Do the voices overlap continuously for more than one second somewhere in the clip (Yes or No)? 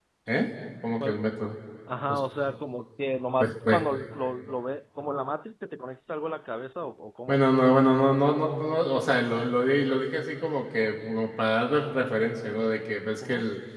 No